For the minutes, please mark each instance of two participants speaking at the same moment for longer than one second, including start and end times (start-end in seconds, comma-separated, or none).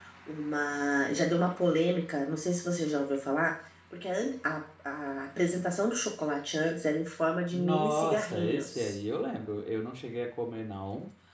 7.5-8.7